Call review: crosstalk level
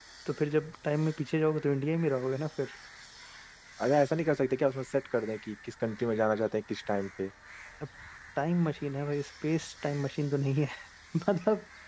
none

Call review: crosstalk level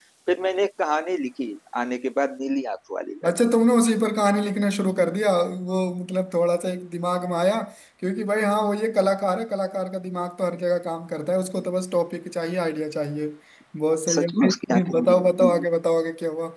present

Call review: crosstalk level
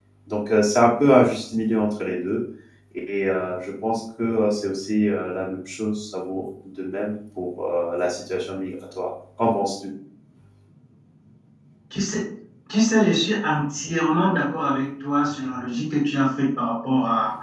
none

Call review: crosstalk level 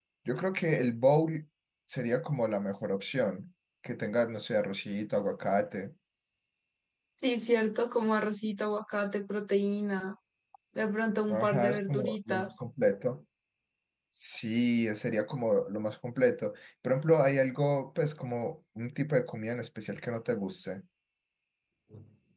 present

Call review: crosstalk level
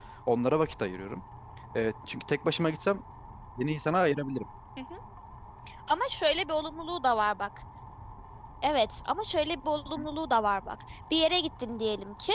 none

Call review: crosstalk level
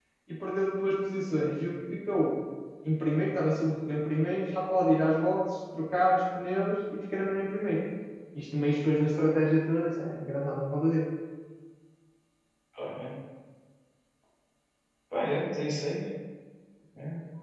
none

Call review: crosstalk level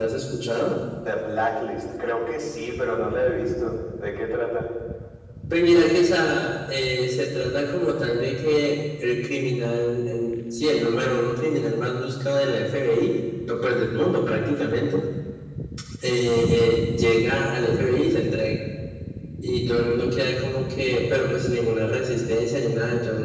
none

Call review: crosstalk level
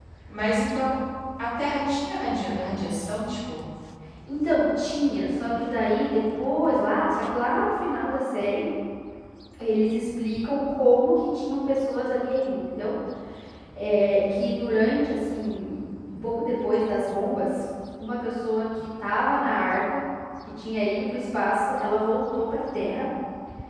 none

